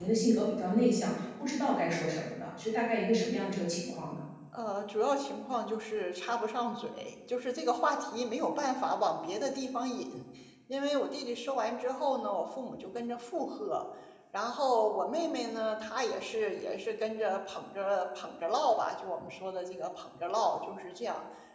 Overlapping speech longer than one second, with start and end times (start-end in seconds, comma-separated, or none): none